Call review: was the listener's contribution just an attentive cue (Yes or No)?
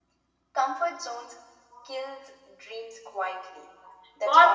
No